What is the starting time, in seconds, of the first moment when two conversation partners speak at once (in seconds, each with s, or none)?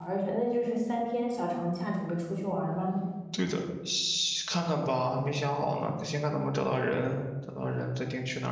none